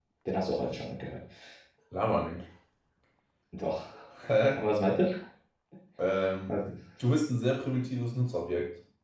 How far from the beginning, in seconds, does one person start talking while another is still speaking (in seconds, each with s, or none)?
none